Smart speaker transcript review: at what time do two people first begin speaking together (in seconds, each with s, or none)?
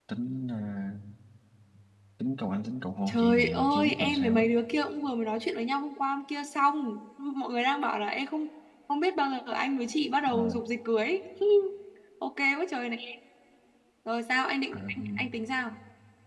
3.1 s